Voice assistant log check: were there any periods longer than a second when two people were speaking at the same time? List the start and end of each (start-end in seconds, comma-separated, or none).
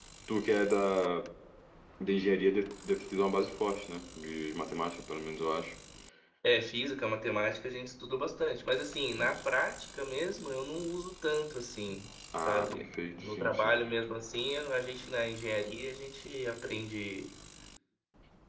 12.5-13.8